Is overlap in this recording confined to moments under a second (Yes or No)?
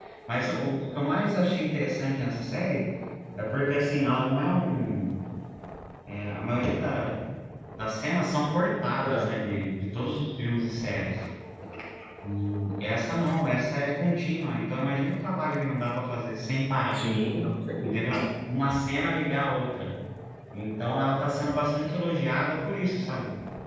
Yes